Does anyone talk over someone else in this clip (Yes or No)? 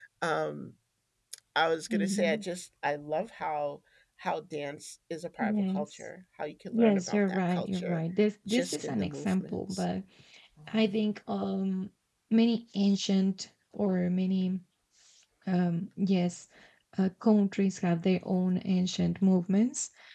Yes